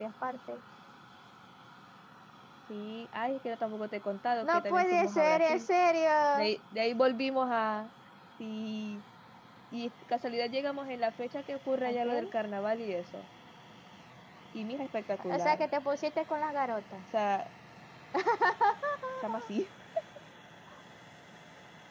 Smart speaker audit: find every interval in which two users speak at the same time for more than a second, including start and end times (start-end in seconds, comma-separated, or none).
4.4-5.7